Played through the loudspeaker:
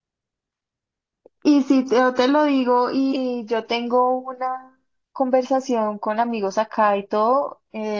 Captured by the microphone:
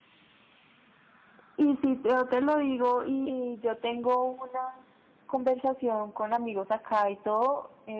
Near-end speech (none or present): none